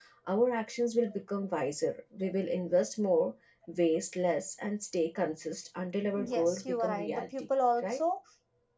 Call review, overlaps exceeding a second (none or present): present